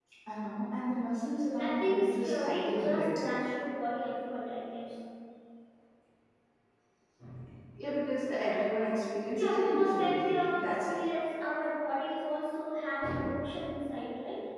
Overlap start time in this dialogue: 1.5 s

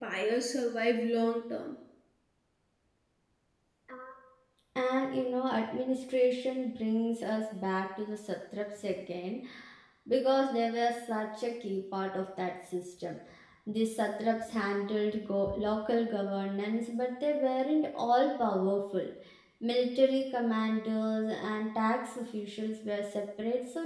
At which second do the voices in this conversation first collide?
none

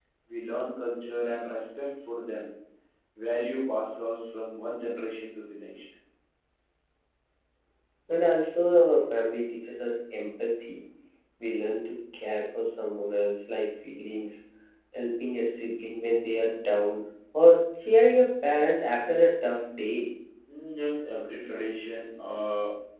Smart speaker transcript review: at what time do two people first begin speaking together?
none

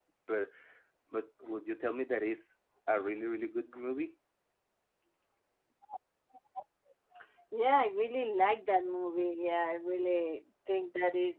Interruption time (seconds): none

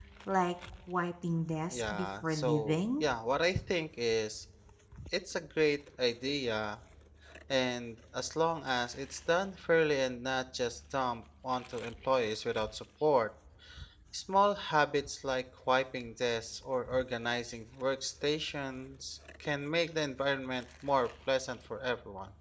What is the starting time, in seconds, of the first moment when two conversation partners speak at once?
1.7 s

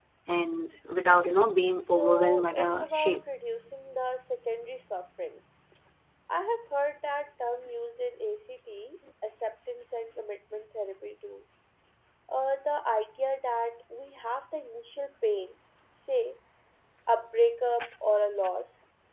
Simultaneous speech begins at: 2.0 s

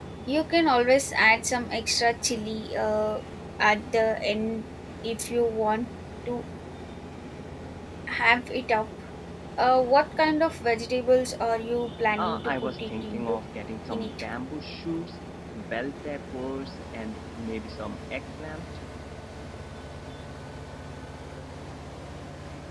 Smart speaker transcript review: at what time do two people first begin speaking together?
12.2 s

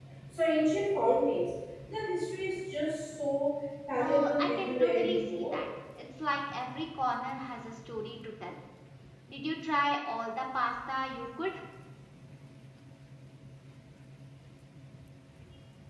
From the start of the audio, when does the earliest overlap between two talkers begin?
4.0 s

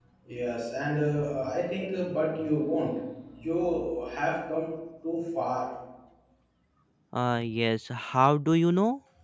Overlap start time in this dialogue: none

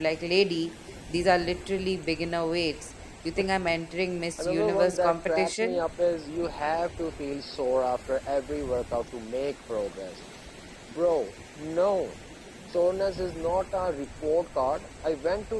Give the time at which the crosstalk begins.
4.4 s

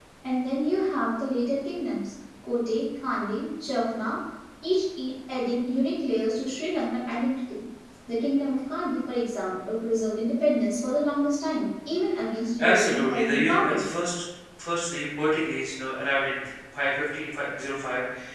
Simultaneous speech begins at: 12.6 s

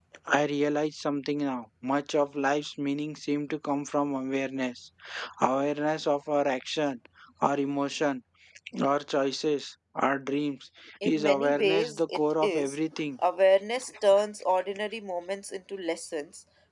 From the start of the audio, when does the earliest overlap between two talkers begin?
11.0 s

